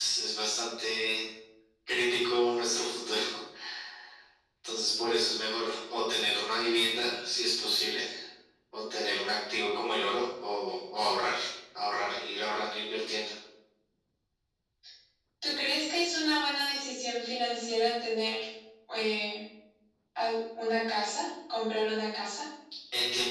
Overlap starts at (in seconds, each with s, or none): none